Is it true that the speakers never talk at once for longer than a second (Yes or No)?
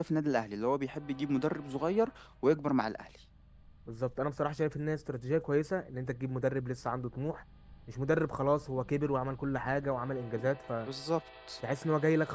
Yes